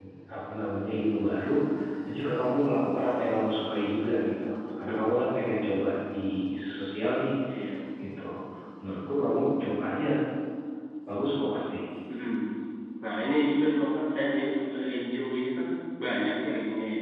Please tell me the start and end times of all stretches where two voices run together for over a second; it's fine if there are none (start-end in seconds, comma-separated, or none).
none